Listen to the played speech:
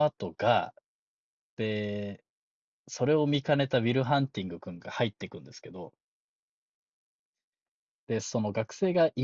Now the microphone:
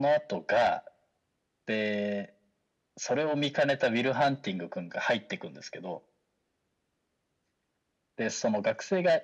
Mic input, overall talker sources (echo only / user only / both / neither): echo only